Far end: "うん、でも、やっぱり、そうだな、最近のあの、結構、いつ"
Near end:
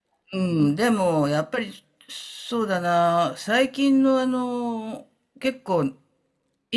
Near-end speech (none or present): none